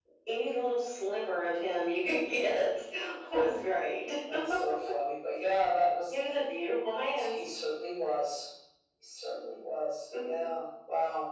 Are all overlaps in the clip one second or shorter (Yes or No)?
Yes